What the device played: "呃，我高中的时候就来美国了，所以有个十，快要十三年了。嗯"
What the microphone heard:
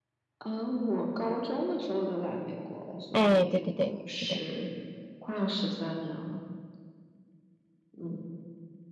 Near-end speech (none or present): present